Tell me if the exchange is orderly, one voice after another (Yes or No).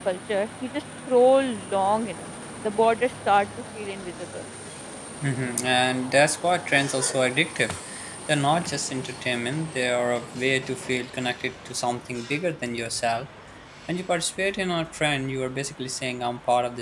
Yes